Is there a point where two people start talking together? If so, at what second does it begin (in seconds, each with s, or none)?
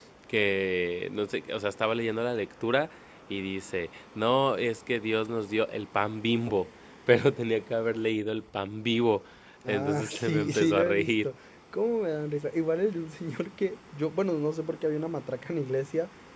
9.7 s